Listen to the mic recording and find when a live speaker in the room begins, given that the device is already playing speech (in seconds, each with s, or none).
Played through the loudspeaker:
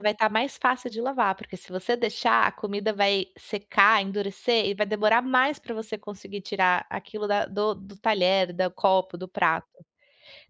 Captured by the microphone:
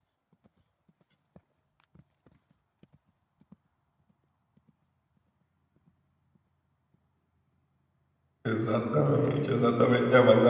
8.5 s